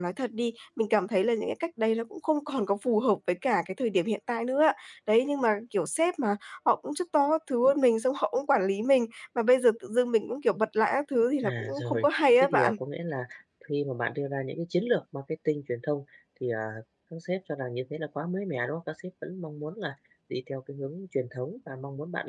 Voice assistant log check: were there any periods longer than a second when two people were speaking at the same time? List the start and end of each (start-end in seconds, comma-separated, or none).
11.4-12.8